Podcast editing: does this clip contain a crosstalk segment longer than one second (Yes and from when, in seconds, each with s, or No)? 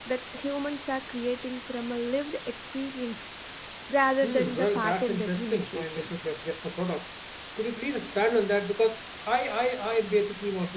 Yes, from 4.2 s